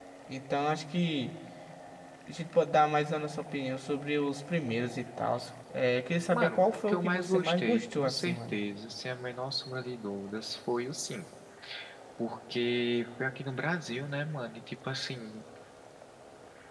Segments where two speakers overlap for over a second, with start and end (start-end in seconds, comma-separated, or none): 6.3-8.6